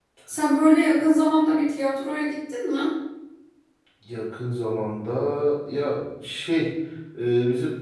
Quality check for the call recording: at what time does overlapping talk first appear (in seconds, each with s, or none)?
none